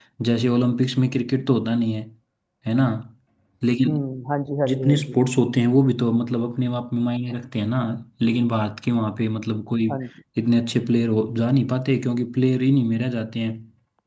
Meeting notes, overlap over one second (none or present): none